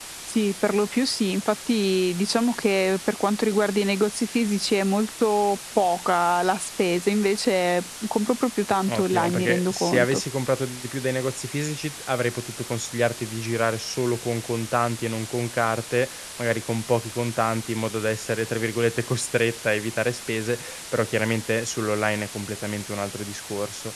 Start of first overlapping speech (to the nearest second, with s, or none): 9 s